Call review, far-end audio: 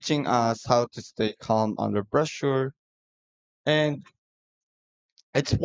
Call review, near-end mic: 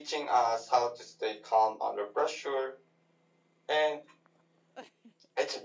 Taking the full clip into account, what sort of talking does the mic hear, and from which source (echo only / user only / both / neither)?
echo only